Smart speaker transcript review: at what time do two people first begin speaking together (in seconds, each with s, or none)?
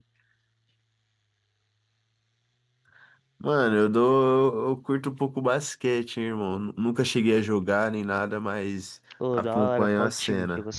9.2 s